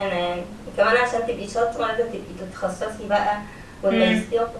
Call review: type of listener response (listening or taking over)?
listening